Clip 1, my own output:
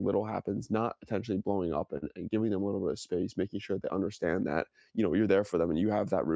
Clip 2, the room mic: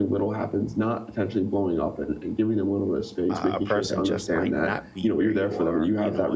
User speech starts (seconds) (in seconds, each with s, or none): 3.3 s